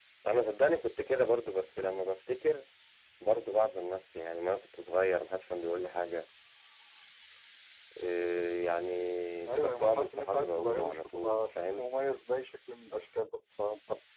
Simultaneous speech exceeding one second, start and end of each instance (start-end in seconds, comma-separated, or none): 9.5-11.9